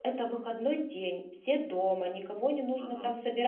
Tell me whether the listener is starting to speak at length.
No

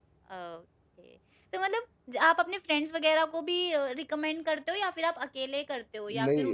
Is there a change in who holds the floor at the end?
Yes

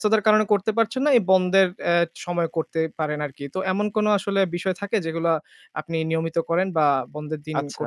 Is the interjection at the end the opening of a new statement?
Yes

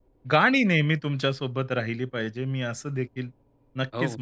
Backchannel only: Yes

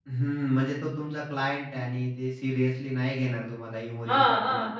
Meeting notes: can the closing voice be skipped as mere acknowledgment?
No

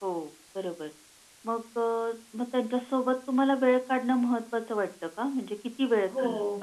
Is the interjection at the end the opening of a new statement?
Yes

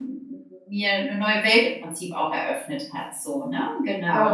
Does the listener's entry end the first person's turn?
Yes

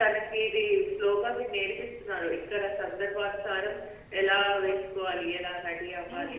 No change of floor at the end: No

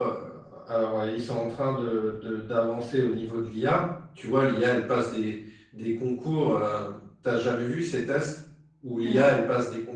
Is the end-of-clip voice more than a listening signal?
No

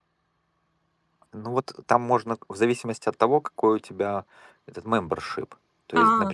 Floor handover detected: No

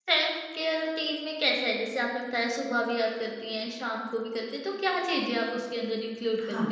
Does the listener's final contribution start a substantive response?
Yes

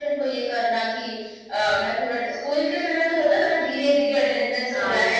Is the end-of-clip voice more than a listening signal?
No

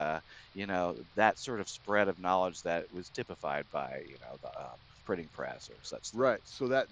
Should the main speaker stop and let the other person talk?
Yes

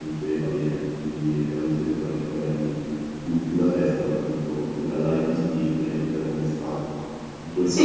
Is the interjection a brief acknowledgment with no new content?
No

